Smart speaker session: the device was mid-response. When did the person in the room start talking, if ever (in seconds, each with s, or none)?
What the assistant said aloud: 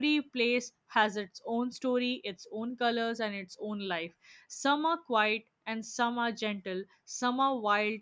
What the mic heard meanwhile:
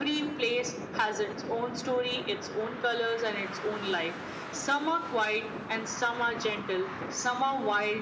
none